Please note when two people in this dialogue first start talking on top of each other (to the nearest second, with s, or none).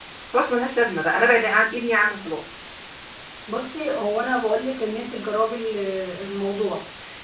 none